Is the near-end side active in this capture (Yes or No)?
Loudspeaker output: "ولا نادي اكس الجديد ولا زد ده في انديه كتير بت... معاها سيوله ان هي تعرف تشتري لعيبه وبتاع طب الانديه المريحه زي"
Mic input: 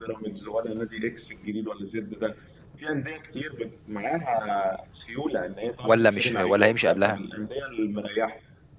Yes